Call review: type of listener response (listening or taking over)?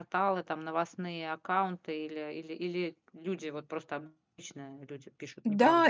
taking over